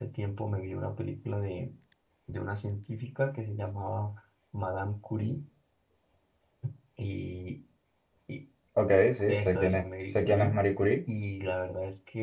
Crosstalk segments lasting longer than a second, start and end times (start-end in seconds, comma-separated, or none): 9.3-10.6